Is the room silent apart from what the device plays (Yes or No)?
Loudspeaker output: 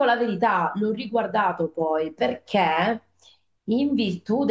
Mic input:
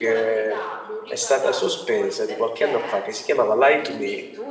No